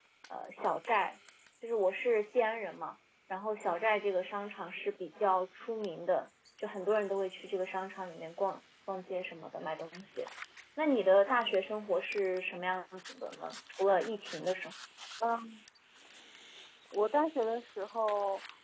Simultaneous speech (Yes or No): No